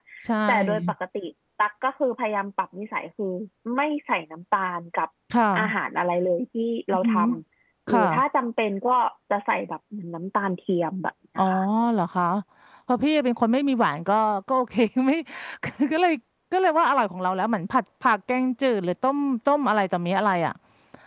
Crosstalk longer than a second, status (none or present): none